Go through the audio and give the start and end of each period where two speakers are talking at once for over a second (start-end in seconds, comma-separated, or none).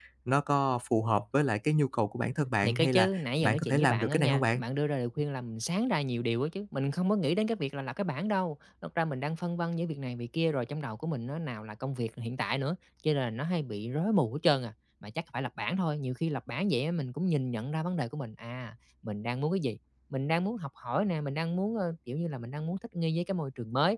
2.6-4.6